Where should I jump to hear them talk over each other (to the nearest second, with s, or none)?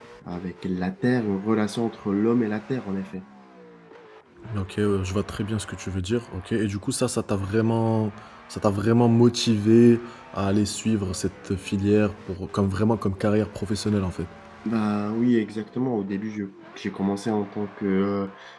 none